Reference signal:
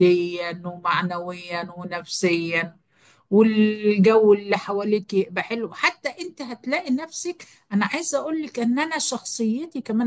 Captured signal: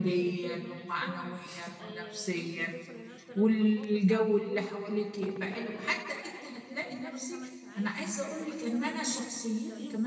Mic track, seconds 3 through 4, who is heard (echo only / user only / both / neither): both